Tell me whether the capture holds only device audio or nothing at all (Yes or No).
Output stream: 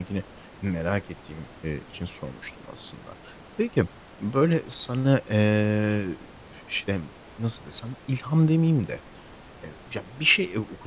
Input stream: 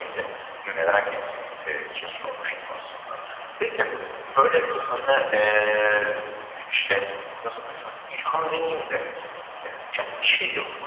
Yes